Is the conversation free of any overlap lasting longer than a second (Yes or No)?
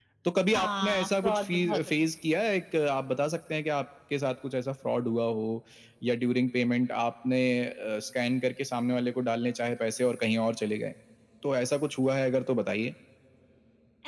No